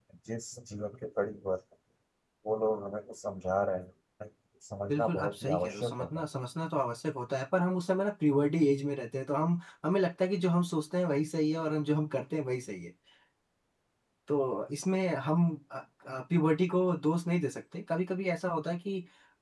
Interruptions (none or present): present